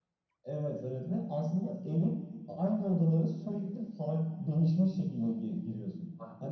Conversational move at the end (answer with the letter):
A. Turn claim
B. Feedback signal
B